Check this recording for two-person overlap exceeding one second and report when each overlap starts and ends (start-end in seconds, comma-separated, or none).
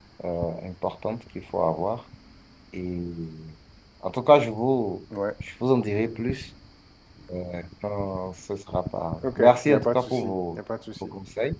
9.2-10.6